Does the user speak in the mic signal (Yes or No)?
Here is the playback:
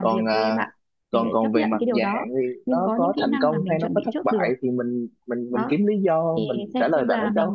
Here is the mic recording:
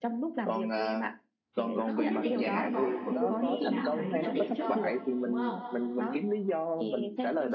Yes